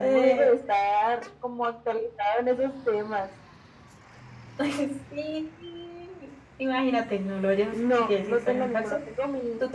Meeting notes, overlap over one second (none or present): present